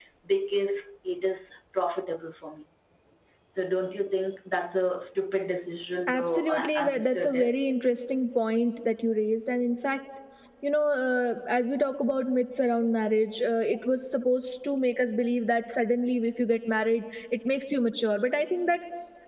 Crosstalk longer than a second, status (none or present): present